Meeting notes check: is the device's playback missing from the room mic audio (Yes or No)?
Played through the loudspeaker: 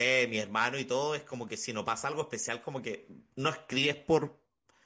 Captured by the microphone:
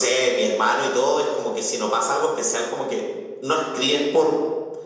No